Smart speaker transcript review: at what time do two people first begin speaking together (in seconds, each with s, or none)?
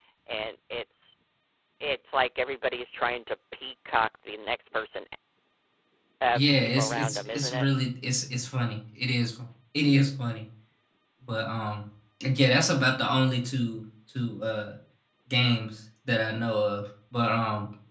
6.3 s